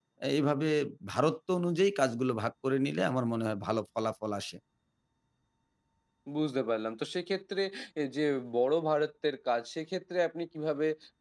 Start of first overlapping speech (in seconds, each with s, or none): none